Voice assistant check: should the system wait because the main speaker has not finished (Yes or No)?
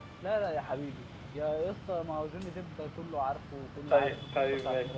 No